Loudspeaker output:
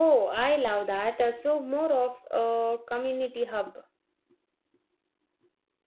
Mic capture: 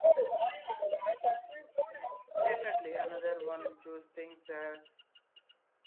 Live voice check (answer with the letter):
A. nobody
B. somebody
B